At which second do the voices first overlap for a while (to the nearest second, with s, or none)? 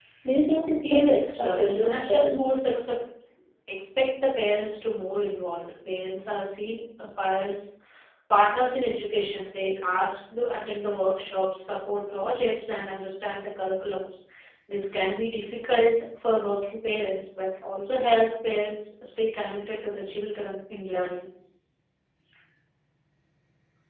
1 s